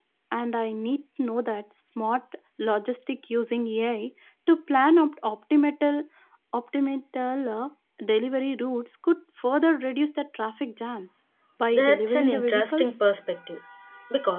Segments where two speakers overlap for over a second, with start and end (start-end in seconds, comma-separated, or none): 11.7-12.9